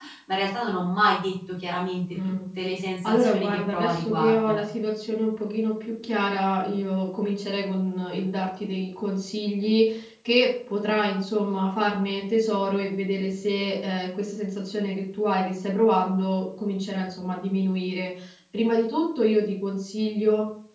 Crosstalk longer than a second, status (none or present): present